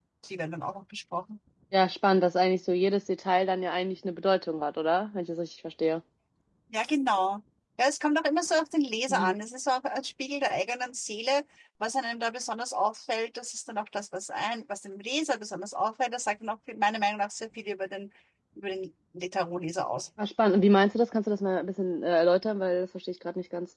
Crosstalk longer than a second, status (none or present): none